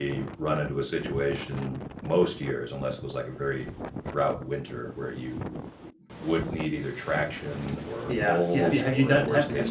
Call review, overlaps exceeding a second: present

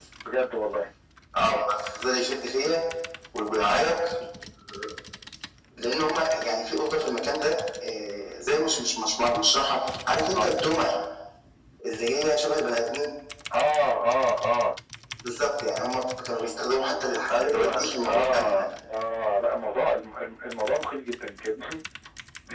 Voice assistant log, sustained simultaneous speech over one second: present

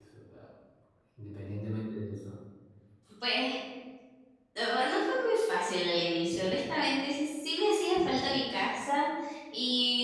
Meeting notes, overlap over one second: none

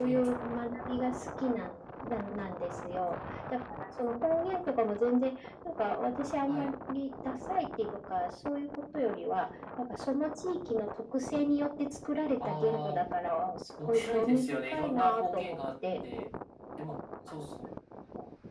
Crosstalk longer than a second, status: present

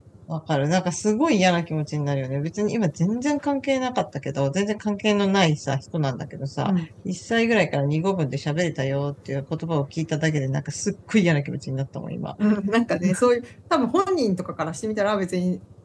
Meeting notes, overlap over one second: none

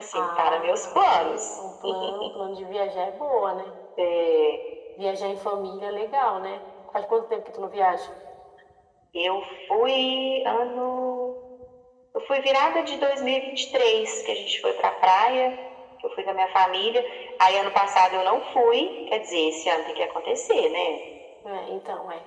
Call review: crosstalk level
present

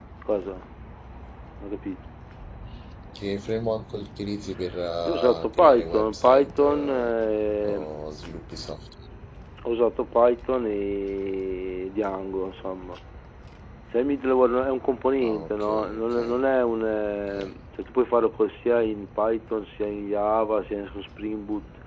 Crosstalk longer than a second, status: present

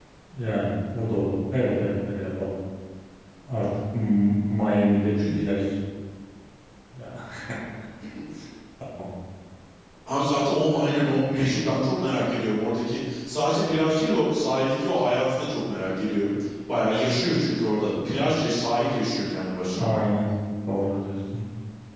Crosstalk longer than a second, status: none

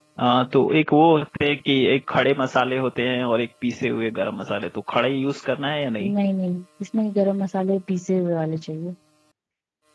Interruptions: none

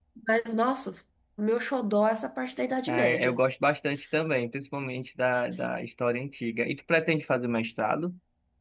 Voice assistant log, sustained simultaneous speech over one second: none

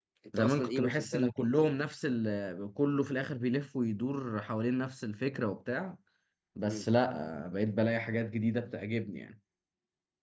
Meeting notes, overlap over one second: present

